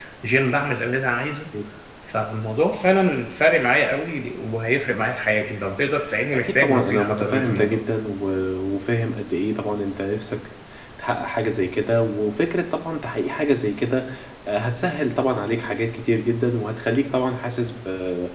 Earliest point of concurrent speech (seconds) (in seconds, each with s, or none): 6.2 s